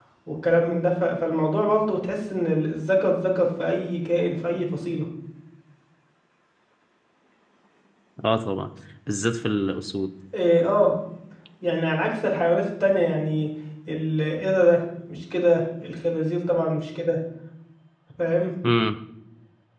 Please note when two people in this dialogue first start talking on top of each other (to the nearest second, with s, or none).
none